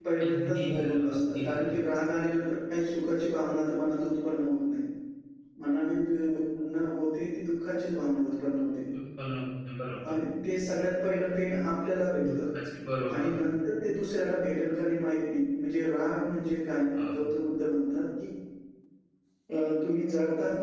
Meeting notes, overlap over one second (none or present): present